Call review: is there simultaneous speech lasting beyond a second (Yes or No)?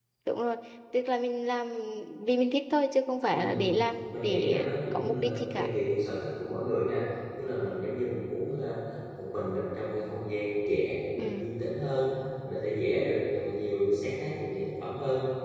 Yes